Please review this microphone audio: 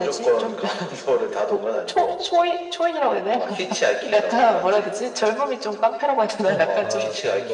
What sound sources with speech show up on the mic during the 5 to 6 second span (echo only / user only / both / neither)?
echo only